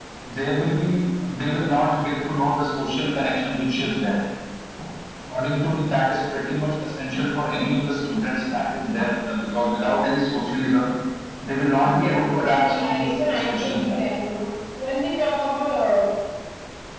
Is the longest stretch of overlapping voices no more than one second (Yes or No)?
No